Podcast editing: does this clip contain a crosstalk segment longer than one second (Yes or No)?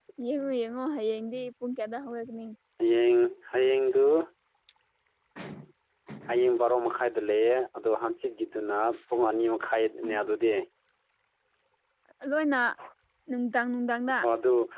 No